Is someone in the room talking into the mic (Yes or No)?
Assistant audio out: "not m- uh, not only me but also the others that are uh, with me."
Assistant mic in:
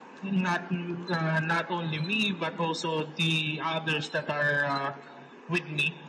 No